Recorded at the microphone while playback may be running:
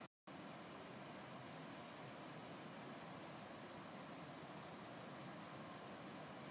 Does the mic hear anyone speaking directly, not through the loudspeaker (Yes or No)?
No